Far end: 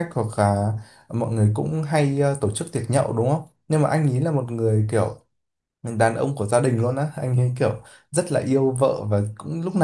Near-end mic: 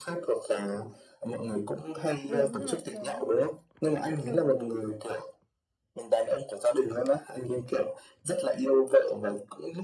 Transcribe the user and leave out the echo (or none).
Đúng rồi, đúng rồi, đúng rồi.